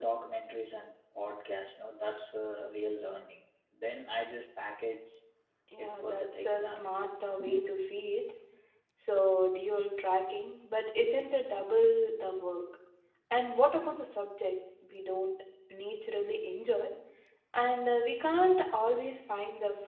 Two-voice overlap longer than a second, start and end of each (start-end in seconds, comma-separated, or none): 5.8-7.0